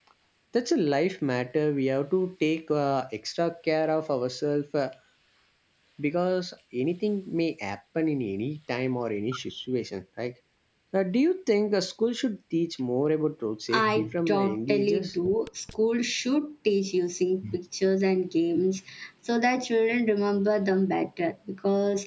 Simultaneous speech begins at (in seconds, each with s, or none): 13.7 s